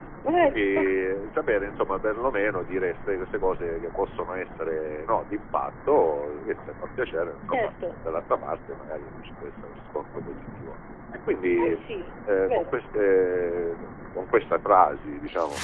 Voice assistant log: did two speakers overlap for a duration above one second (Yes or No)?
No